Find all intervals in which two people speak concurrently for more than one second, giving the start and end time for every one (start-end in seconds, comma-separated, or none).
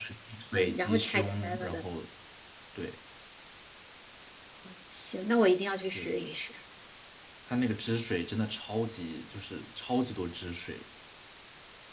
0.5-1.8